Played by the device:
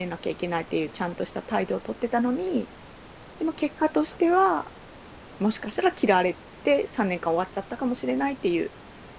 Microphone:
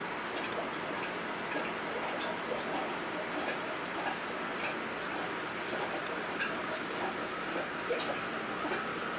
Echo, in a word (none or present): none